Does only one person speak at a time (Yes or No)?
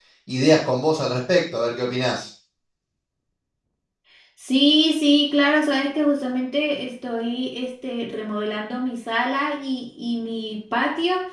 Yes